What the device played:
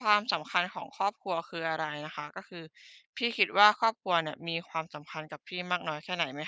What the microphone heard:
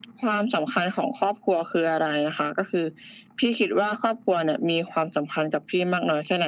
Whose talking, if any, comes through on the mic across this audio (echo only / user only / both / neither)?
echo only